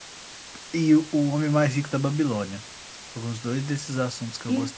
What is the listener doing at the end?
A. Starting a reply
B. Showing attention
A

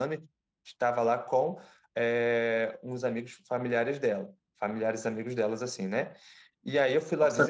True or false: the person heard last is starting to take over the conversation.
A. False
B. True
B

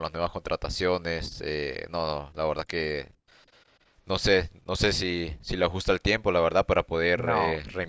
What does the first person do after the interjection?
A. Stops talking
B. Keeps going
A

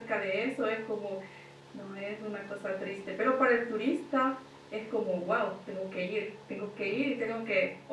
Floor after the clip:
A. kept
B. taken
A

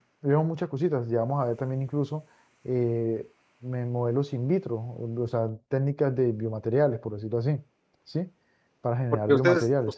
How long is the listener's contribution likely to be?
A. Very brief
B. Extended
B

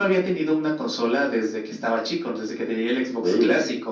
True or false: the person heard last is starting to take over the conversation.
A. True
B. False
B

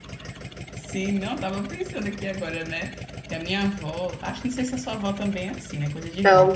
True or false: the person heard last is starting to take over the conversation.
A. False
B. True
A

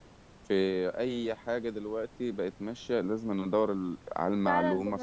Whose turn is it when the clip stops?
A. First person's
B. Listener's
B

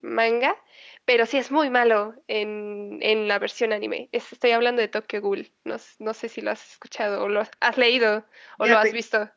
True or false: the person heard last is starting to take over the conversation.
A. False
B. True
B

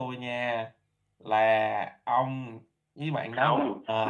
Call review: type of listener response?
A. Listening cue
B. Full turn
B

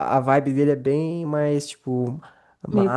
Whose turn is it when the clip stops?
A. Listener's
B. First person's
B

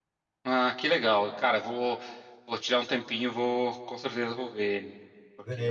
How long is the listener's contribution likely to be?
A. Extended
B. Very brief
A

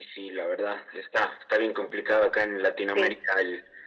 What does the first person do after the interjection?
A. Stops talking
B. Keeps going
B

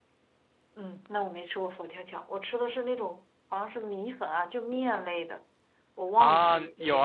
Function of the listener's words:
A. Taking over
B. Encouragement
A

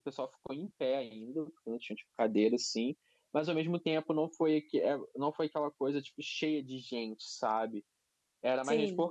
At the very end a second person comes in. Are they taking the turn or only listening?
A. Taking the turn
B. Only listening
B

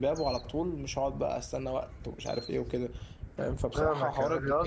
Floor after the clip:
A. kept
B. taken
B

